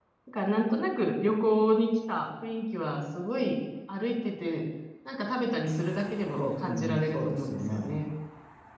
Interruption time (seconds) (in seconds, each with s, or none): 6.4 s